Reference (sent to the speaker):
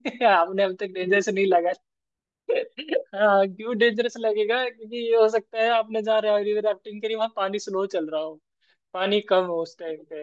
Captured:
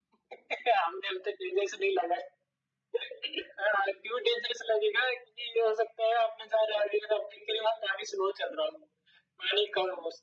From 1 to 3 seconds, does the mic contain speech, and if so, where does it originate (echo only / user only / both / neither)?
echo only